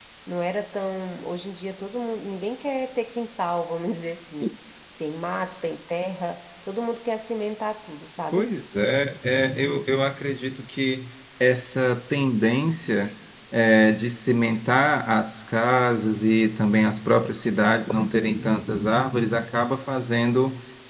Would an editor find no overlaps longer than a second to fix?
Yes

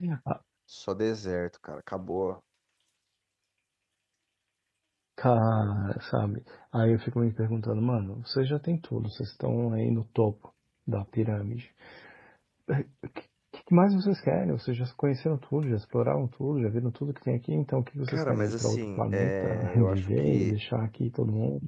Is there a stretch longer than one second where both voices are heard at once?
Yes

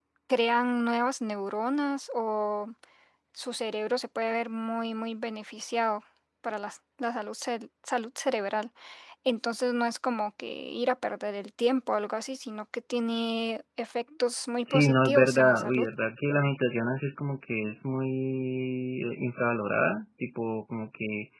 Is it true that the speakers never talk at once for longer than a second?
No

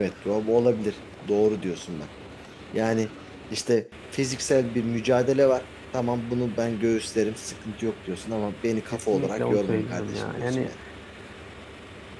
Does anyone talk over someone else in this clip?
Yes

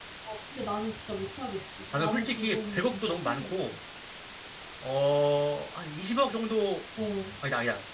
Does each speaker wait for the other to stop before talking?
No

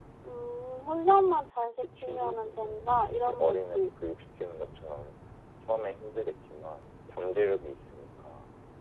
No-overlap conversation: No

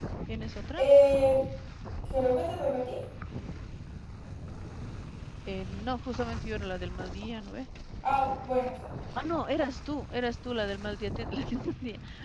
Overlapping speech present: No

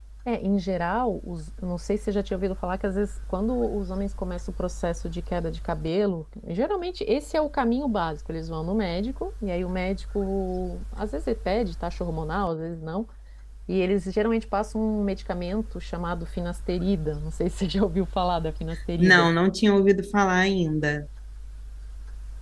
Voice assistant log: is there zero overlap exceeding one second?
Yes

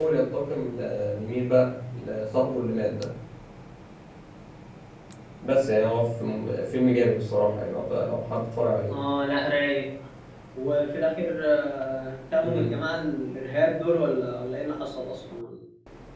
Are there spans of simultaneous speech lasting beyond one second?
No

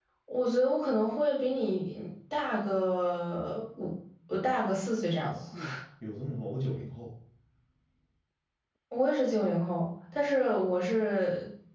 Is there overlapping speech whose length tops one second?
No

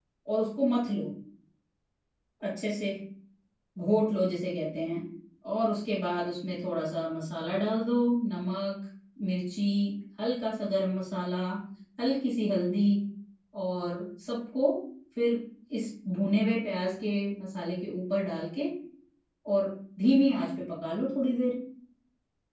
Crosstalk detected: No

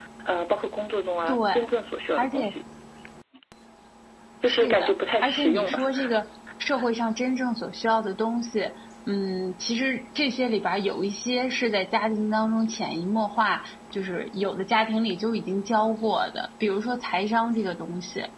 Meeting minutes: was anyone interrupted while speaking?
Yes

